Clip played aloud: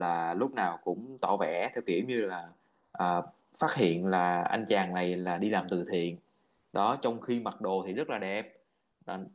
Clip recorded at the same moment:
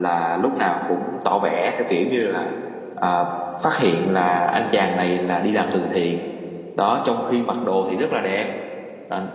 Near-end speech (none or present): none